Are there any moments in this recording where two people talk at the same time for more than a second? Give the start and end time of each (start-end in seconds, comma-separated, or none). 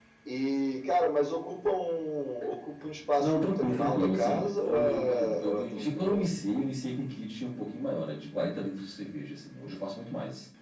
3.2-6.3